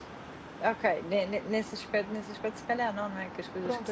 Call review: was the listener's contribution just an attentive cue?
No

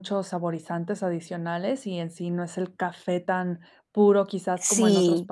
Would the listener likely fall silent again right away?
No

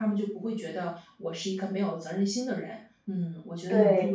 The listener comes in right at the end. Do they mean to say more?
No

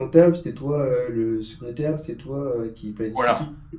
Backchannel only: No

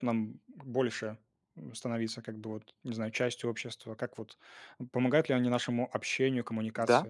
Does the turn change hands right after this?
Yes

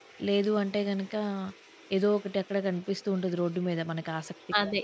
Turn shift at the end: Yes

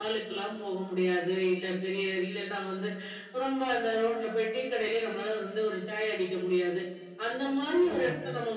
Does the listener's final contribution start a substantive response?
No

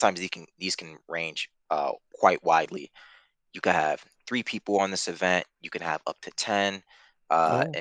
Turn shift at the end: No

